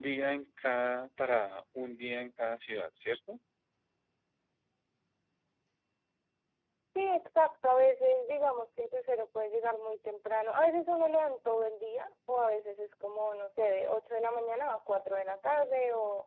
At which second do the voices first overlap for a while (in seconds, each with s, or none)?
none